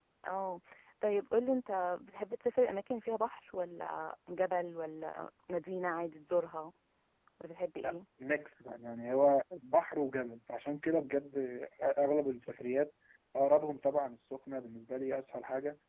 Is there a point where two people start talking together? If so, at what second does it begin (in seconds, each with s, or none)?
none